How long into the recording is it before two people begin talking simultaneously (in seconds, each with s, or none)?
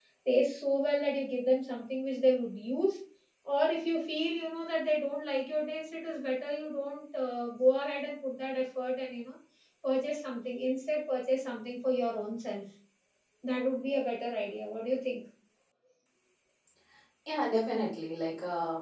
none